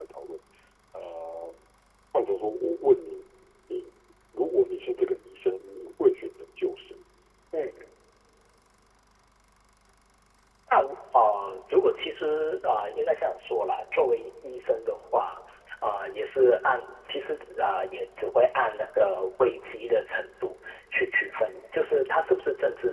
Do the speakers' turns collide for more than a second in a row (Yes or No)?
No